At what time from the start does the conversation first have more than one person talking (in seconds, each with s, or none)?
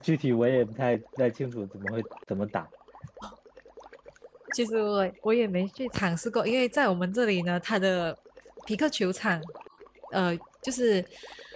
none